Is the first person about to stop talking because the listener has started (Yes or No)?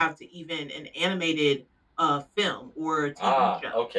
Yes